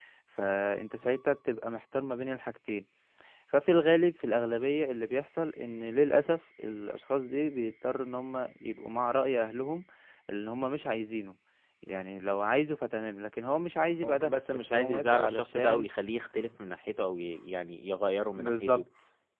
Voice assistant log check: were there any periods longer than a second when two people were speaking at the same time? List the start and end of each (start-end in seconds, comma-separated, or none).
14.0-15.9